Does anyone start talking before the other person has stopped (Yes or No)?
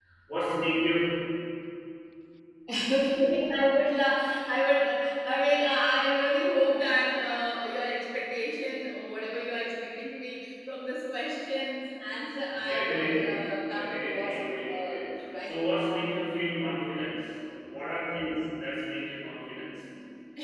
Yes